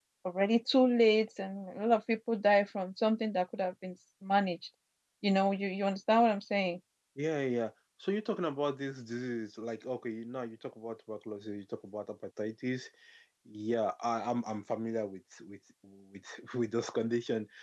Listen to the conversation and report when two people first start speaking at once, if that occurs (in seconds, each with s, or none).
none